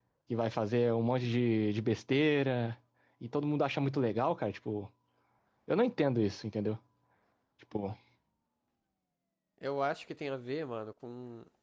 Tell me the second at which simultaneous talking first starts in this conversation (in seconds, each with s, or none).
none